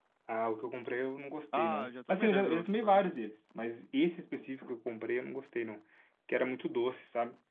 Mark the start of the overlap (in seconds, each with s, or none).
1.5 s